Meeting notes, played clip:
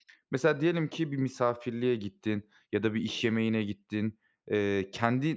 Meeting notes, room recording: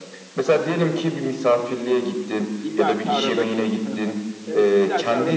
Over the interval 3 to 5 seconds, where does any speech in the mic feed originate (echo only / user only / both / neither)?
both